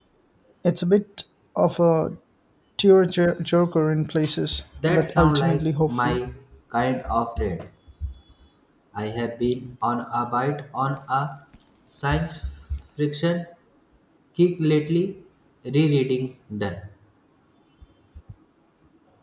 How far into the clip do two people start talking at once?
4.8 s

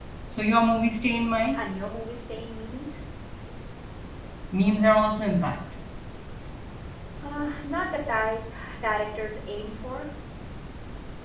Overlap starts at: none

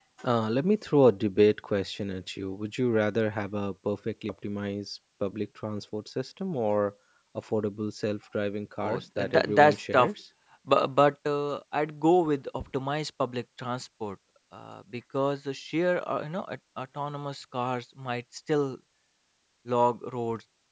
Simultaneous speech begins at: 8.8 s

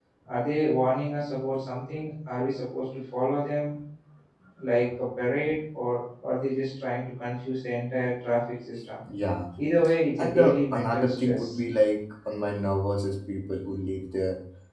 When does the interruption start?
10.2 s

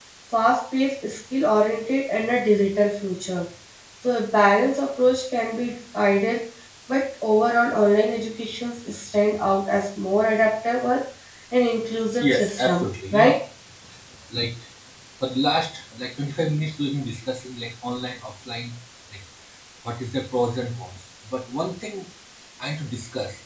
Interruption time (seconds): 12.2 s

